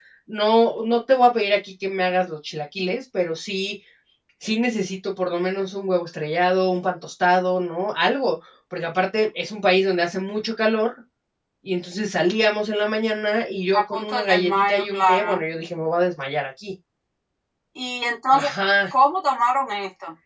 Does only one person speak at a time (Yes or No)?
No